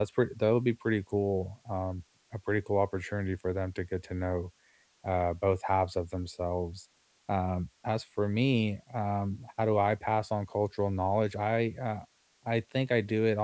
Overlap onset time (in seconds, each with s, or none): none